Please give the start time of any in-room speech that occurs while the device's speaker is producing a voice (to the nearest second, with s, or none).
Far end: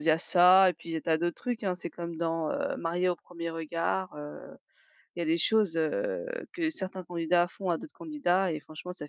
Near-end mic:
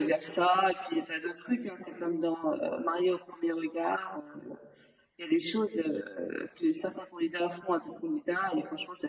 none